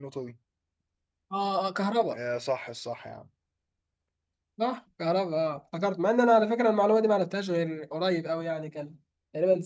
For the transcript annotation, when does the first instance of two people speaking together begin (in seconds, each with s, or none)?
none